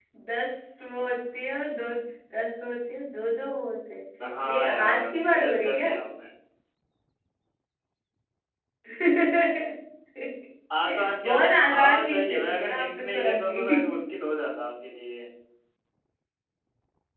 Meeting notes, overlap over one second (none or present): present